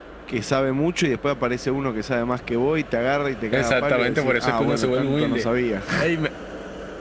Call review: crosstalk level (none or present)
present